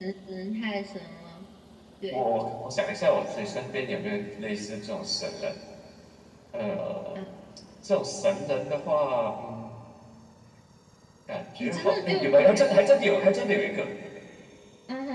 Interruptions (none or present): present